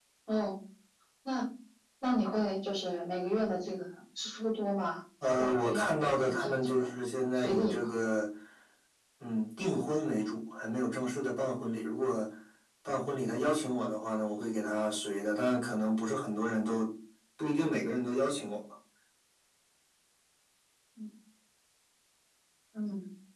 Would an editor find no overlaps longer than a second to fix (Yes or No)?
No